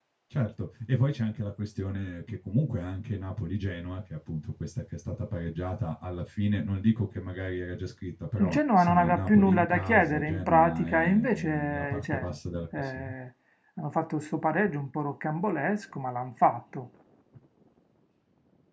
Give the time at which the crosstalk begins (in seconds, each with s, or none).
8.4 s